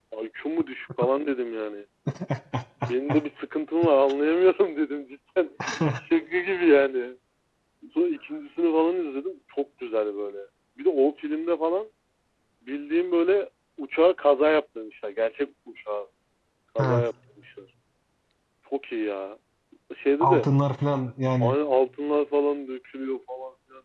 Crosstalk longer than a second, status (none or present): none